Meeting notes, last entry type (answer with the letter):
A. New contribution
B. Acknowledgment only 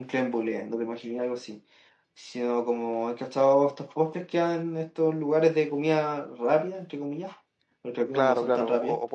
A